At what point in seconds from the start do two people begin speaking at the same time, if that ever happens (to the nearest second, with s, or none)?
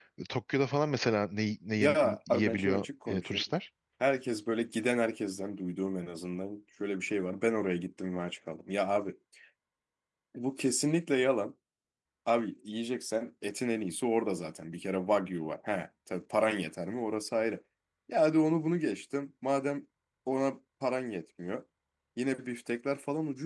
2 s